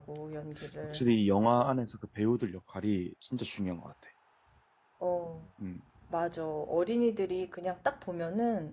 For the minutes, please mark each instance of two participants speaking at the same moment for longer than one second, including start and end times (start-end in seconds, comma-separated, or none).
none